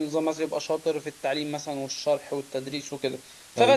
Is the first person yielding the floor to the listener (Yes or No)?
No